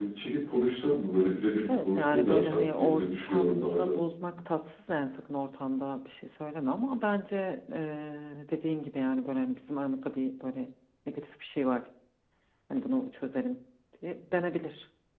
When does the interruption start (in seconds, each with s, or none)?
1.7 s